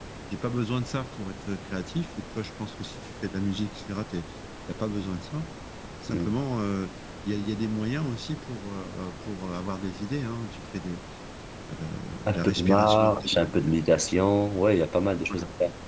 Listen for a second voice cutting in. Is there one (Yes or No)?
Yes